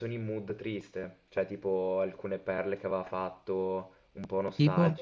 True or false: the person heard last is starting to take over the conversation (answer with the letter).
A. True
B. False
B